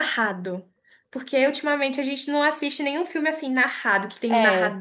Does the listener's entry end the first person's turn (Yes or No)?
No